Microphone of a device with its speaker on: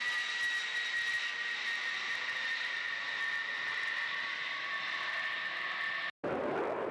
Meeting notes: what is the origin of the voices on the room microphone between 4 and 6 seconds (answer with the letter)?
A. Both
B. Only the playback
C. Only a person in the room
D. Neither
D